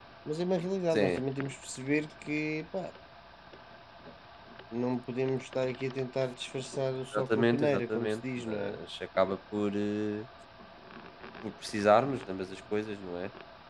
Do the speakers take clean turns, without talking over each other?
No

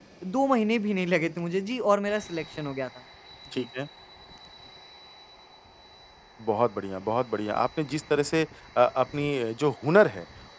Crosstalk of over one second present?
No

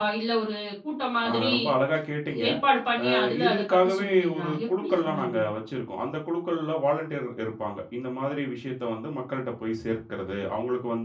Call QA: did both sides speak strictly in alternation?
No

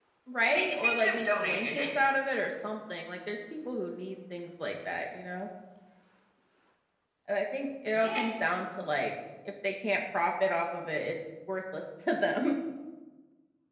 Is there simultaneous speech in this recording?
Yes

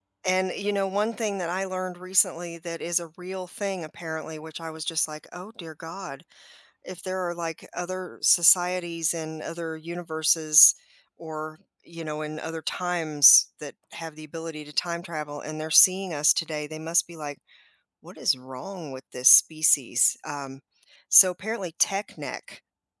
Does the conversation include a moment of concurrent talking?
No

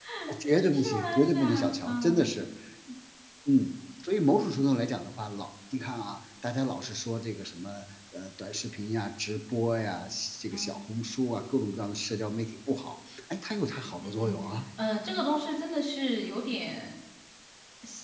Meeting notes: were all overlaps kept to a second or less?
No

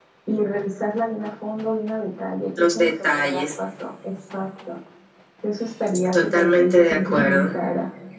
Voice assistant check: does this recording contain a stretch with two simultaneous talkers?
Yes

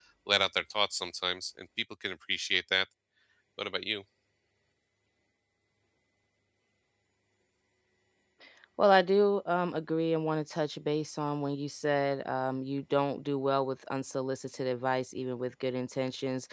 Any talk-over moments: No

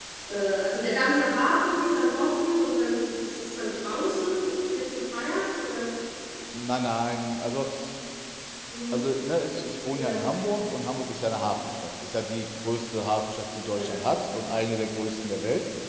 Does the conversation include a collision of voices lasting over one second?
No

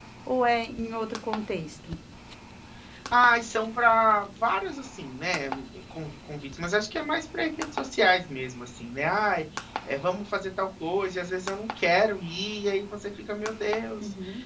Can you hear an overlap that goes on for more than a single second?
No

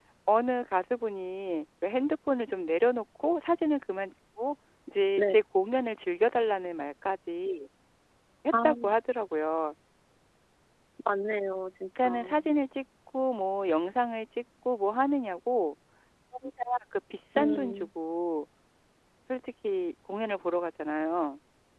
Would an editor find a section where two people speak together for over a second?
No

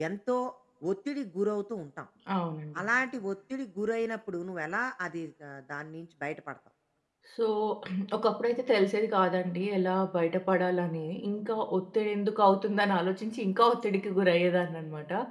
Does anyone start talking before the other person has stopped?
No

